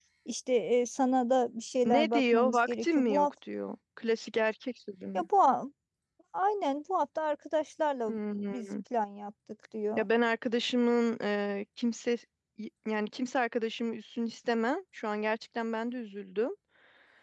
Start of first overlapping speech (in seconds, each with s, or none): 1.8 s